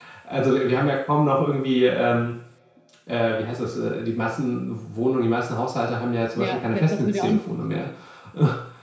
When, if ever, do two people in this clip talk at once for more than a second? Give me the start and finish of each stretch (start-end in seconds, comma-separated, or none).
6.3-7.9